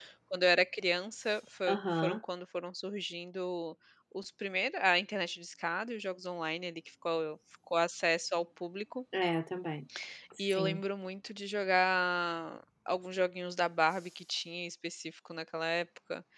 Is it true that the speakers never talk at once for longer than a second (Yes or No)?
Yes